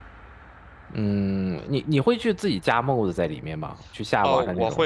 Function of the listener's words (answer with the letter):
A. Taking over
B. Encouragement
A